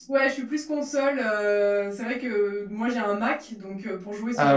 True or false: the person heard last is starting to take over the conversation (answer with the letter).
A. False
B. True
A